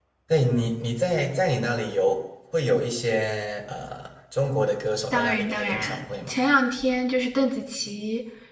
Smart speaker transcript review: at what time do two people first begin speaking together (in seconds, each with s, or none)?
5.1 s